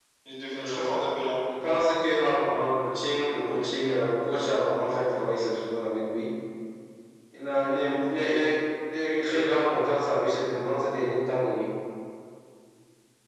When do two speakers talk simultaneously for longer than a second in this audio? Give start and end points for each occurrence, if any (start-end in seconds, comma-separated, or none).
none